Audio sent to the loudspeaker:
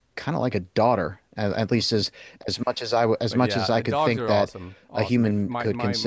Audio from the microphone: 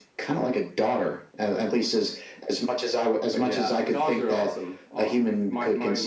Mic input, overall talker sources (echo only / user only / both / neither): echo only